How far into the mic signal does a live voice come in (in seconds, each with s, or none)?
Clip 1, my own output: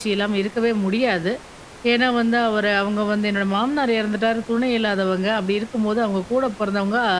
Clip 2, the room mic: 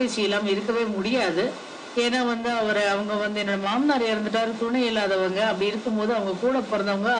none